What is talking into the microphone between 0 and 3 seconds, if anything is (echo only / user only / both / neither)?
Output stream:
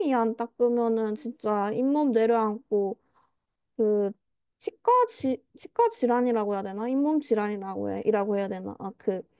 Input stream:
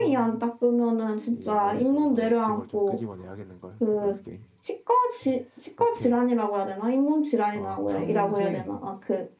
both